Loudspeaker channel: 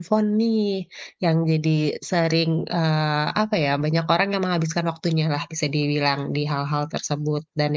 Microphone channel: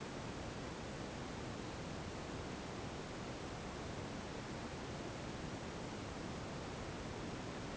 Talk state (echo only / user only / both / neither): neither